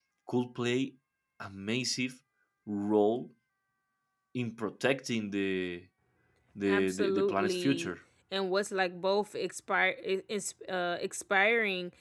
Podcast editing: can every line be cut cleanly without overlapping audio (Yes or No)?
No